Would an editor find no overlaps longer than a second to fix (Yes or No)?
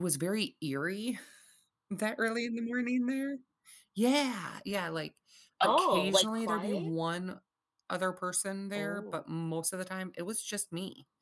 No